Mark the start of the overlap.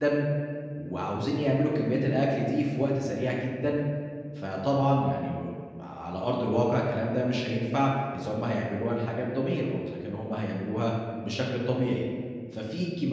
none

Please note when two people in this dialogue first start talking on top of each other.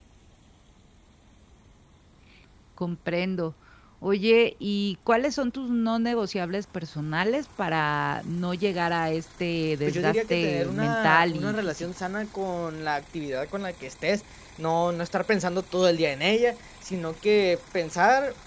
9.9 s

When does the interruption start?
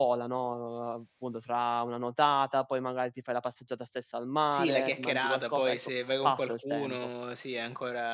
4.5 s

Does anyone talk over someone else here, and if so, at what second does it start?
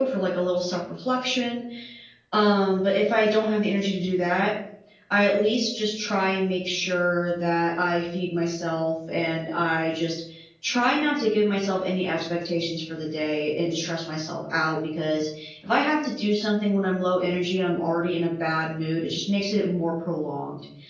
none

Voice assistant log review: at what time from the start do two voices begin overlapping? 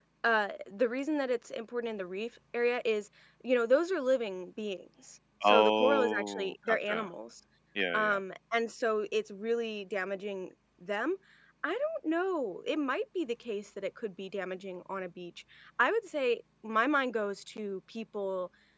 5.4 s

